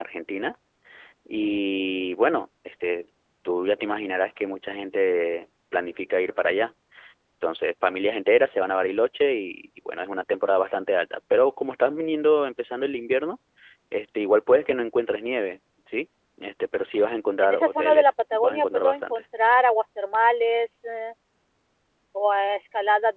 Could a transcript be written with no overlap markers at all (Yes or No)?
No